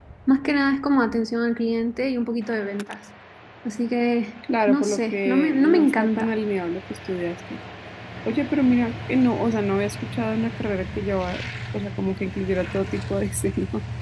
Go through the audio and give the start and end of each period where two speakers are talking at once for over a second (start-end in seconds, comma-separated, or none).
4.7-6.3